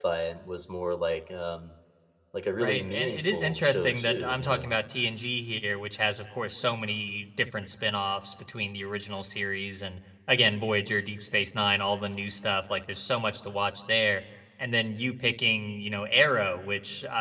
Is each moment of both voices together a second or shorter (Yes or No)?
No